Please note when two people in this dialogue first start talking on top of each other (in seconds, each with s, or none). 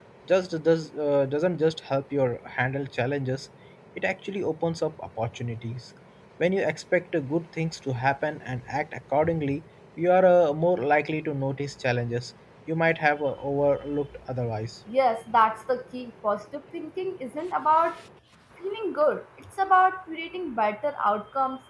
none